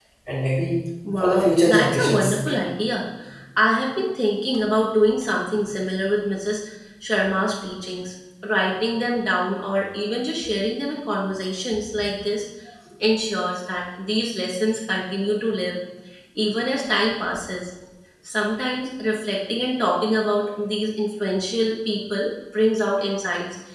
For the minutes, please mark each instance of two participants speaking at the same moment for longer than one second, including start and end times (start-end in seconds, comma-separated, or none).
1.2-2.6